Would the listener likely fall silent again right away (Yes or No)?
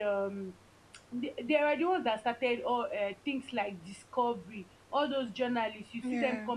Yes